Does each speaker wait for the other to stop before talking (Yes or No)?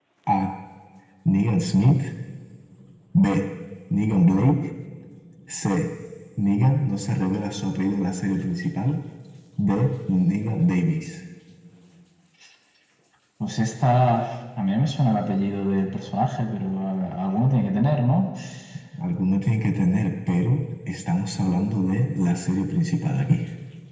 Yes